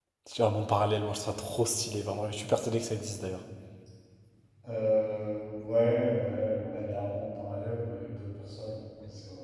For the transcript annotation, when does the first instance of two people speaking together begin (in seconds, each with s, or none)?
none